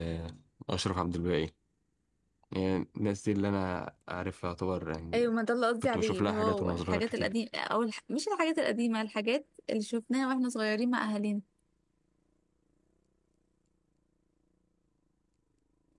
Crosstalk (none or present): present